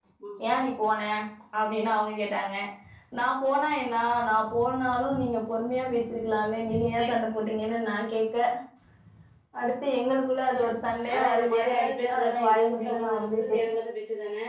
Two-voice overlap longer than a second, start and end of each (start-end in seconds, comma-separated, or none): 11.1-13.6